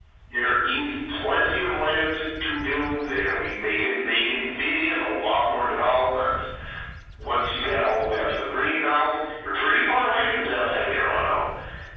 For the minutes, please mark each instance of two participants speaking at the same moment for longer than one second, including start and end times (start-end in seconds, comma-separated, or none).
none